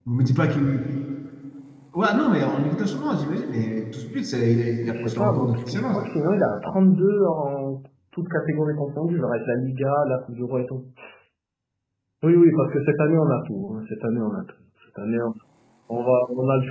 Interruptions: present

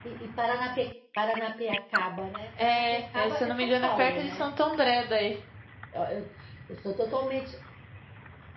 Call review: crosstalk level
present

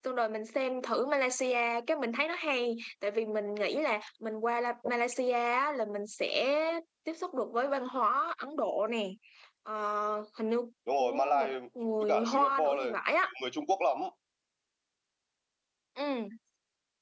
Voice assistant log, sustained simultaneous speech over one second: present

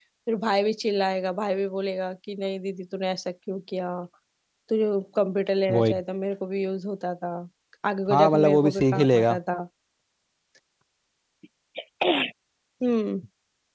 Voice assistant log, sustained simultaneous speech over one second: present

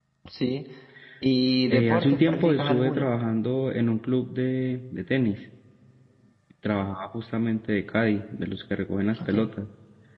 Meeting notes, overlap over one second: present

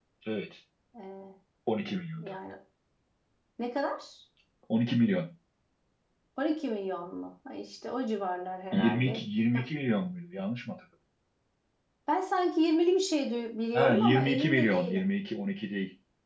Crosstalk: present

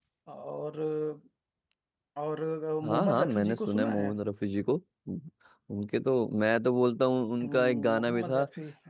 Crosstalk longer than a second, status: present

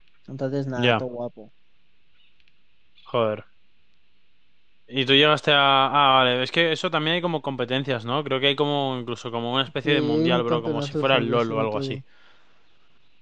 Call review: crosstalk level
present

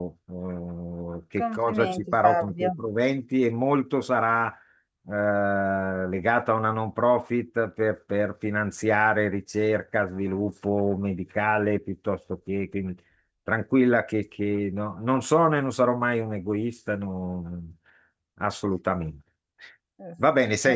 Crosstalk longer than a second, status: present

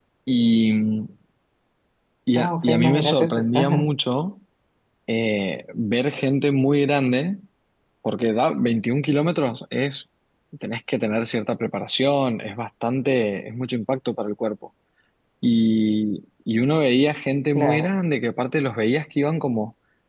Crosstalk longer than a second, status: present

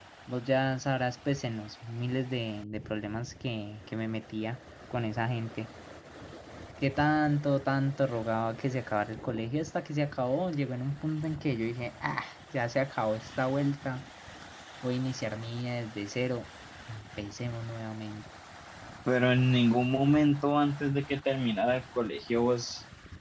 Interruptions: none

